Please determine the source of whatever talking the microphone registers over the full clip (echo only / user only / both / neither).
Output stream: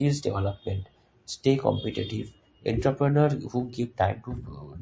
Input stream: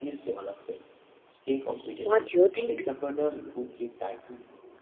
both